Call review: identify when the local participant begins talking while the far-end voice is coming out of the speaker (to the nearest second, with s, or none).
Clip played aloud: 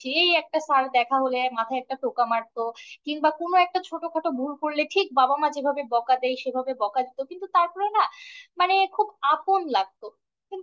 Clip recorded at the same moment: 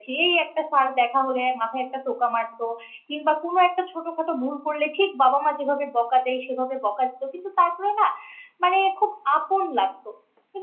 none